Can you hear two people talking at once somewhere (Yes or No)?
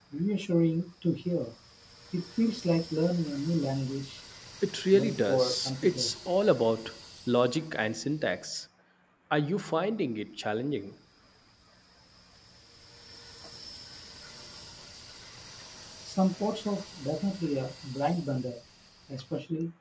Yes